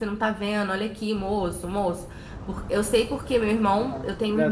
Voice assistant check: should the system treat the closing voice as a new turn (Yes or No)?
Yes